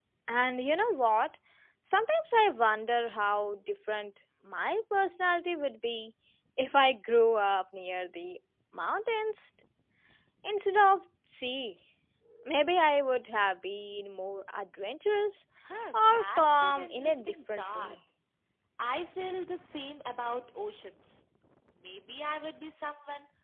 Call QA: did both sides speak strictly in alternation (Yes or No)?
No